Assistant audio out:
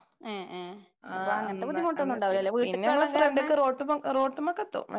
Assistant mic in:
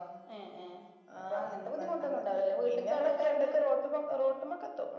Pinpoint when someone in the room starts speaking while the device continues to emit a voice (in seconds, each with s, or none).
none